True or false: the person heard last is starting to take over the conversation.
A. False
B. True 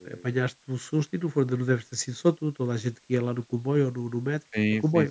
B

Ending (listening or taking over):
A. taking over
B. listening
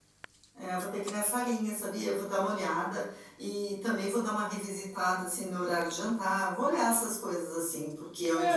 A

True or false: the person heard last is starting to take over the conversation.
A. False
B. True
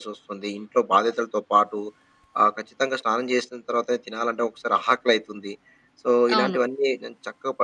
A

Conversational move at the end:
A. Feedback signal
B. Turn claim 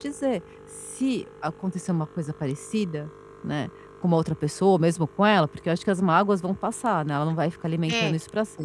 B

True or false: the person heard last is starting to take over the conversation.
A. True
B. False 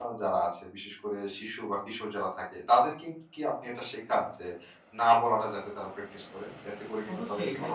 A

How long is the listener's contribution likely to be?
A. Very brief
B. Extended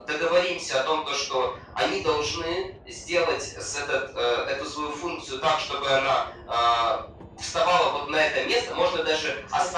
A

